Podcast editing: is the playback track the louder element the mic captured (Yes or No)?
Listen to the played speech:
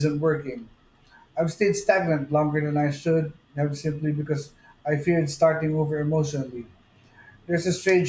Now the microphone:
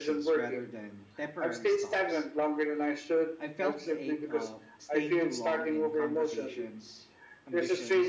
Yes